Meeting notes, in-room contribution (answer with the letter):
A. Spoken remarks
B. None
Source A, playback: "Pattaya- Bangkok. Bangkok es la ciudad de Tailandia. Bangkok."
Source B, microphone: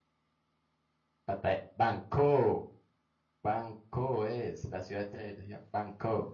B